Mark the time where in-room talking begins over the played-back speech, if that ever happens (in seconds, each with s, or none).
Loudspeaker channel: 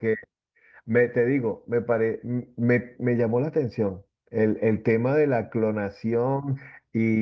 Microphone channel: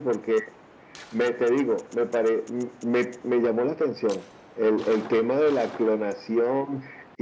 none